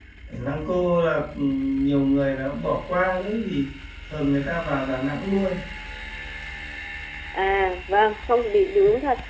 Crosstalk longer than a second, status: none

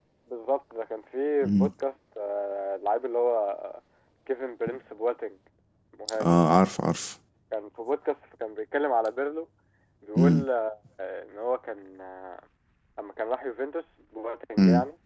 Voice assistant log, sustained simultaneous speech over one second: none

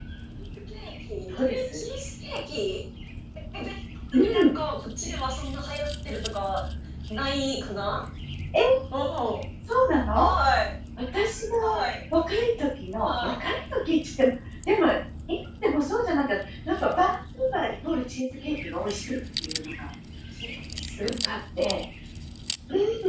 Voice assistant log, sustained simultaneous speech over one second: none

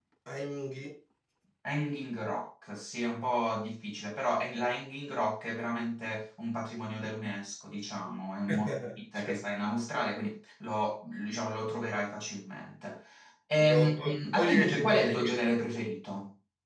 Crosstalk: present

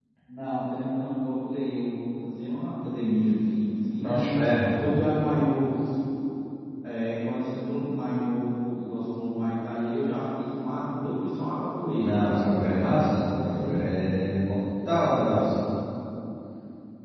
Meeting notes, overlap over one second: none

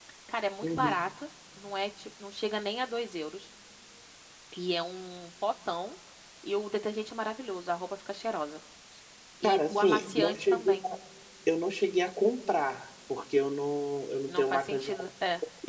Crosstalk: present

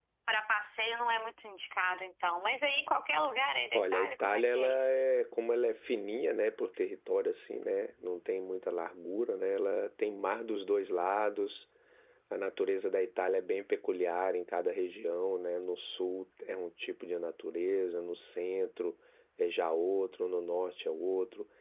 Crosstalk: present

